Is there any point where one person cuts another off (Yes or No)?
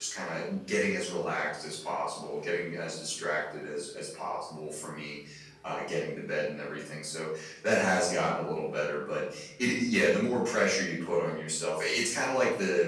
No